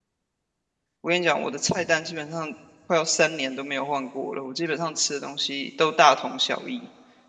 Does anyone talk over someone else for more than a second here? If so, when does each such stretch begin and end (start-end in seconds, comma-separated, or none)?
none